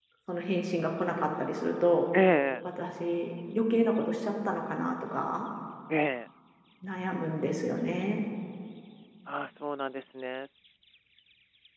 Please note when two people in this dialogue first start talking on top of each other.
none

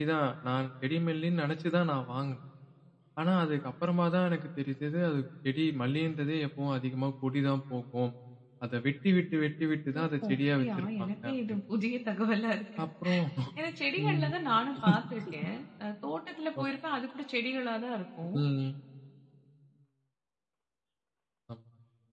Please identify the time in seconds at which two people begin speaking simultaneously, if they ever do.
10.4 s

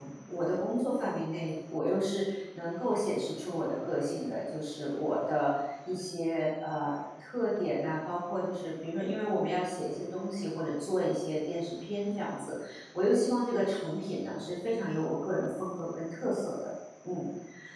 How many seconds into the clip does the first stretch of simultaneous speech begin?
none

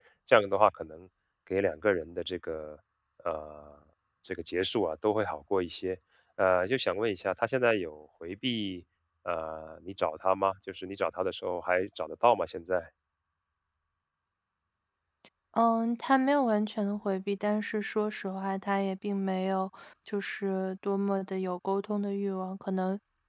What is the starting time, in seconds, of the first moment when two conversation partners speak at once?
none

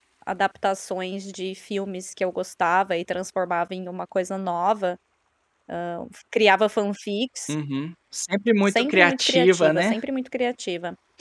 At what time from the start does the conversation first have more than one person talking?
8.7 s

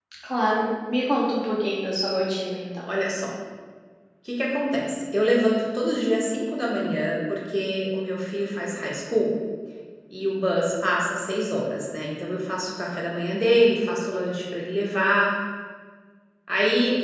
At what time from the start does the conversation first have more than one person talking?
none

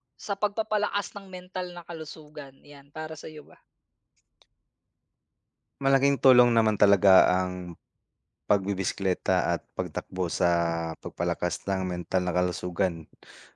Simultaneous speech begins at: none

